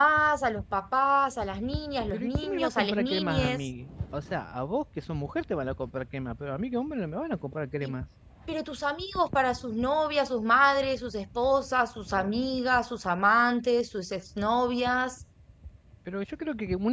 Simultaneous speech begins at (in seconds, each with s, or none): 2.1 s